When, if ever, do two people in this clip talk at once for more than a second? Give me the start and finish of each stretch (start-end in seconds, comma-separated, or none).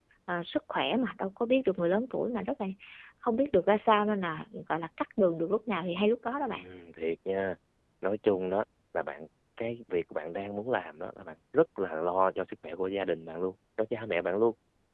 none